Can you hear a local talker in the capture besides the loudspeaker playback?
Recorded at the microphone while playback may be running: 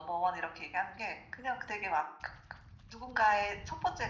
No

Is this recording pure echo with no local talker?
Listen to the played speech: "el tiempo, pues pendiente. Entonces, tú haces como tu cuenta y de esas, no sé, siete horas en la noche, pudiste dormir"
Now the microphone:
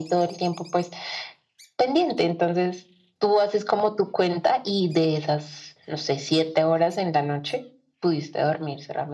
Yes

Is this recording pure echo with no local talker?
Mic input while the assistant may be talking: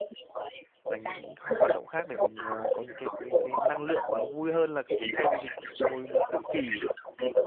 No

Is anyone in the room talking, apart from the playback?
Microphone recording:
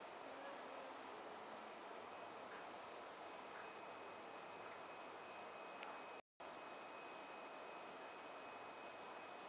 No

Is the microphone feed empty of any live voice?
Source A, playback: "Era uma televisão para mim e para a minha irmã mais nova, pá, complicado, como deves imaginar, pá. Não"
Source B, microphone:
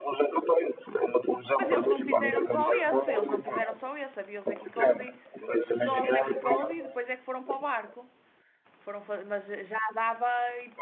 No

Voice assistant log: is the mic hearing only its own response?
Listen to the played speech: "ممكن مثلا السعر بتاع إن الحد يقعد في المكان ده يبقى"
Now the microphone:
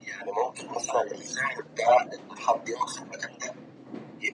Yes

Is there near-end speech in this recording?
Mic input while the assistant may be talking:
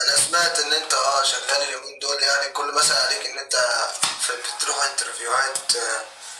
No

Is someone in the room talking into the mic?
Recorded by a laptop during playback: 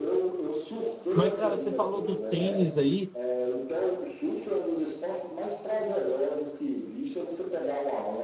Yes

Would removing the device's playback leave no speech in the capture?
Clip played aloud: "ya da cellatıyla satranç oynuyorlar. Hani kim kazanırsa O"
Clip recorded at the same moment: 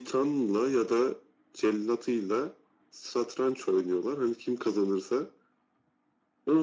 Yes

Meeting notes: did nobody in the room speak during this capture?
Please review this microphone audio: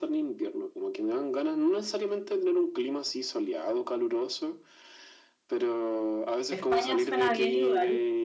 No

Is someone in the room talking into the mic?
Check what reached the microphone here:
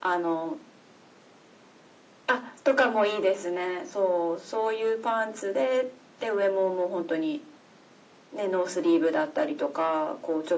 No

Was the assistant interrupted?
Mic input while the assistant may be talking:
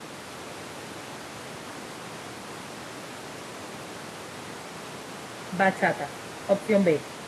Yes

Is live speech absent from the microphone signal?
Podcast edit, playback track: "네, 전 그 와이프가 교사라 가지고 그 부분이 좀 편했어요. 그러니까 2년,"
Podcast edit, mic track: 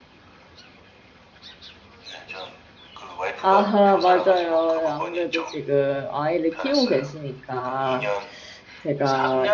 No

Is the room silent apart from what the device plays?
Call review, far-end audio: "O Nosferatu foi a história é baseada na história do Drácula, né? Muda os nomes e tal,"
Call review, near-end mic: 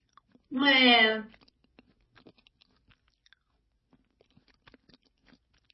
No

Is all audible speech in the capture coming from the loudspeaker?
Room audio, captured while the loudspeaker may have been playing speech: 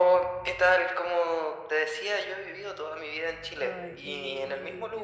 No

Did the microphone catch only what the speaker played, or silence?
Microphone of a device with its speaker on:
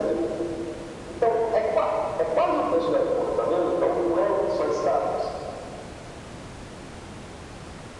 Yes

